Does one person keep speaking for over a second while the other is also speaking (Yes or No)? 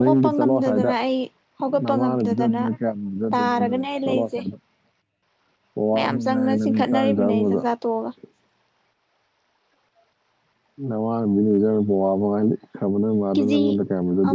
Yes